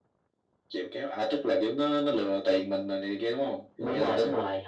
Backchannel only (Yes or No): No